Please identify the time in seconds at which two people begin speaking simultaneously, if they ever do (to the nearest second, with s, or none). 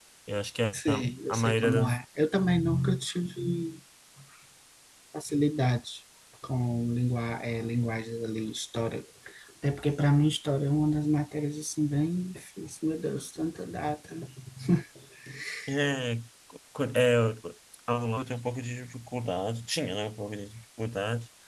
1 s